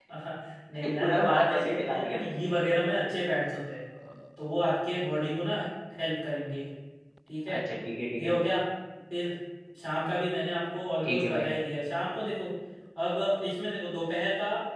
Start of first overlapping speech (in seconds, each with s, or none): 0.8 s